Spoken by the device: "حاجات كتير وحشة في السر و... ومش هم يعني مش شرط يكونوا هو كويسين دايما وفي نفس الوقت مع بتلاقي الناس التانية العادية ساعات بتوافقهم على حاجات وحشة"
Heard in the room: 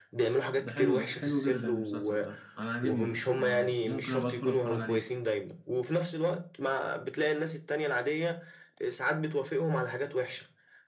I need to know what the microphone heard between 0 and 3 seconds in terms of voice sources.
both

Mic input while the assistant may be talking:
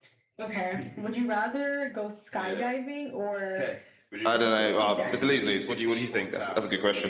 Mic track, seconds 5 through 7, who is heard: both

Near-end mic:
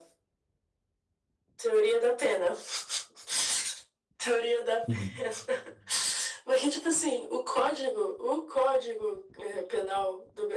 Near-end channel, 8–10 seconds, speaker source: echo only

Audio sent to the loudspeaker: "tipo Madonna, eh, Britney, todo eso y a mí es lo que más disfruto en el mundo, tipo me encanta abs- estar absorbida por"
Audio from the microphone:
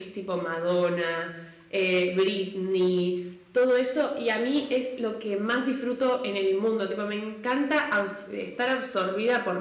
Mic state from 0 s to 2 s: echo only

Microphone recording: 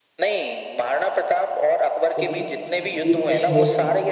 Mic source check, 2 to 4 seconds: both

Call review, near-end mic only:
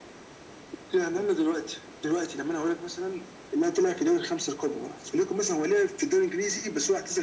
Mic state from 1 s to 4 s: echo only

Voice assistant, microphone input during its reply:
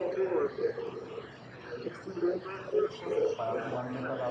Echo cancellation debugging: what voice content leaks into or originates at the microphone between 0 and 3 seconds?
echo only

